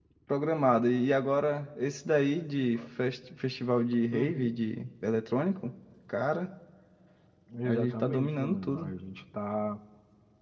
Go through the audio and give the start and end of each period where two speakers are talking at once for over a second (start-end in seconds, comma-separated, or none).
7.6-8.9